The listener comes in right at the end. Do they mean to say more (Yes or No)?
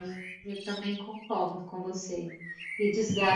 No